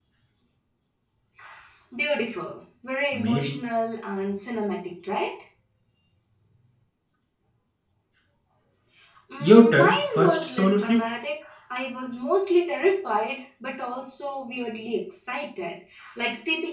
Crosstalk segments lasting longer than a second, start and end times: 9.4-11.0

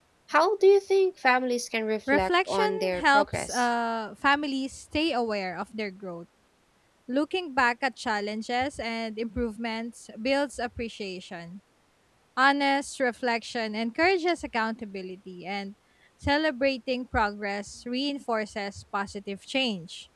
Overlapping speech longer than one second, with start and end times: 2.1-3.6

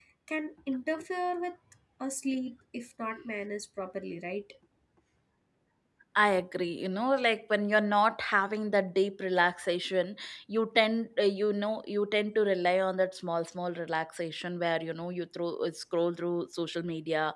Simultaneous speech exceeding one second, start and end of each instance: none

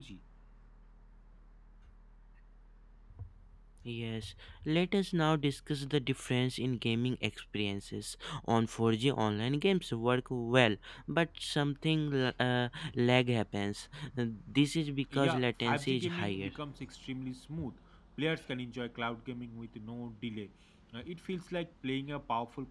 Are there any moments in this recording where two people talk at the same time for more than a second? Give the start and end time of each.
15.1-16.5

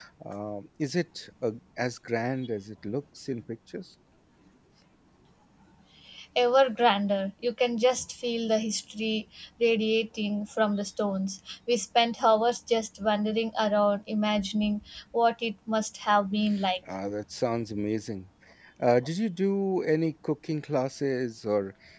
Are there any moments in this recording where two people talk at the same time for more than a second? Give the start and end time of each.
none

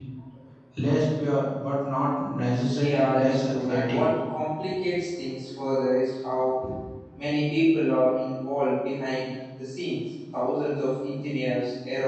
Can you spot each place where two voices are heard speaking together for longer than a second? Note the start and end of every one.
2.8-4.0

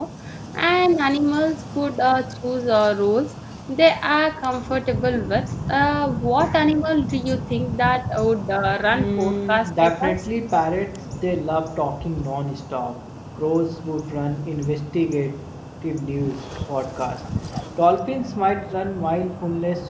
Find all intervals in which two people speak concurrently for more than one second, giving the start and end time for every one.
8.9-10.2

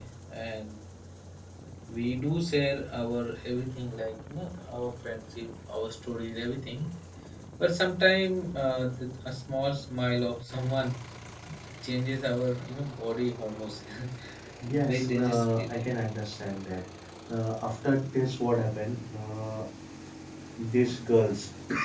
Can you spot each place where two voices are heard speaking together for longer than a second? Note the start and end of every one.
14.7-15.9

